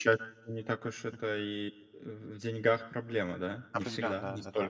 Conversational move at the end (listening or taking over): taking over